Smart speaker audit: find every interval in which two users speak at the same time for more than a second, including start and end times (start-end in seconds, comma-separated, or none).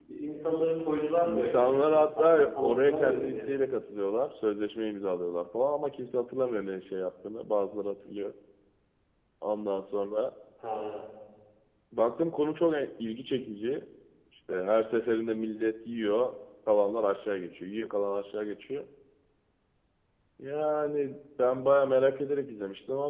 1.2-3.5